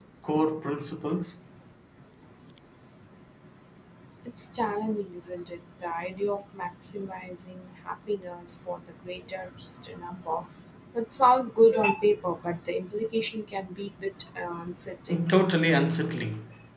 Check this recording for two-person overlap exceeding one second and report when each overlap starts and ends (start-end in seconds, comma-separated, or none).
none